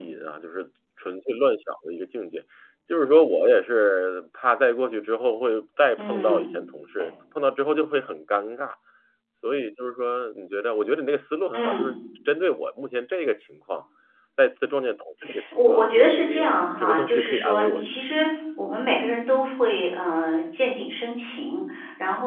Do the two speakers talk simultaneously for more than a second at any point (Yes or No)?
Yes